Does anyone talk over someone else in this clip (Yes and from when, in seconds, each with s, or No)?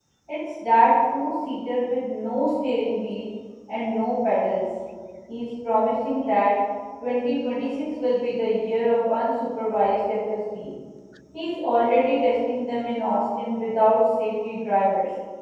No